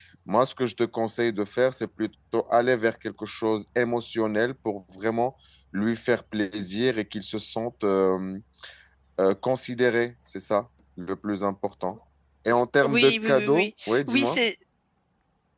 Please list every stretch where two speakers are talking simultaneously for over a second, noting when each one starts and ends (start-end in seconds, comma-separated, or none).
12.8-14.4